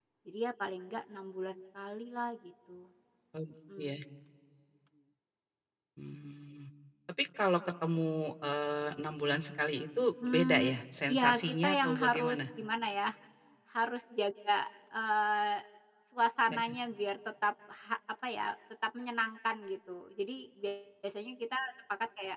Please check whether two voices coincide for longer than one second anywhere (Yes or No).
Yes